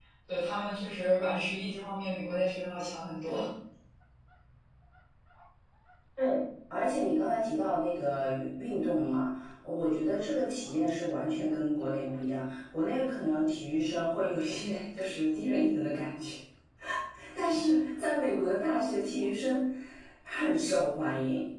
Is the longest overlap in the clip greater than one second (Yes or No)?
No